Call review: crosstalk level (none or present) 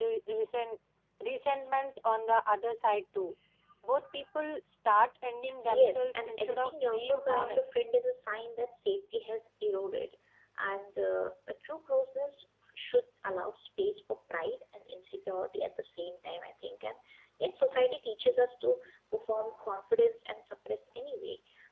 present